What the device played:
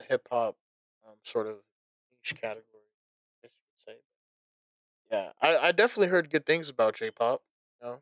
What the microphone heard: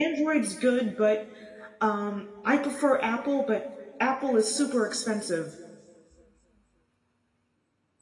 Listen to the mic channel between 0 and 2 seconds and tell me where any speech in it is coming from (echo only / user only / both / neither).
user only